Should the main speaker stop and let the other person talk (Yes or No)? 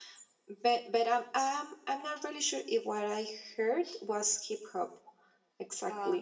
No